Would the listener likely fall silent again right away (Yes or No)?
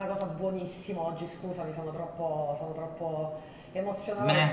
No